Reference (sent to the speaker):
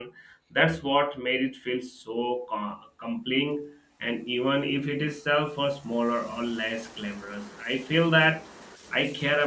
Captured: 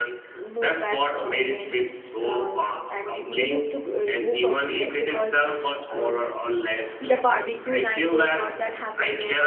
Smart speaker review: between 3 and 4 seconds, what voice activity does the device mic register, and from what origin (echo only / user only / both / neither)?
both